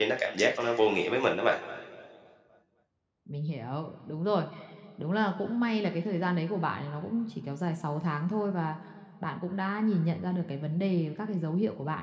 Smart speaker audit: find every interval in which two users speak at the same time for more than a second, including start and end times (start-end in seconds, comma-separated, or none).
none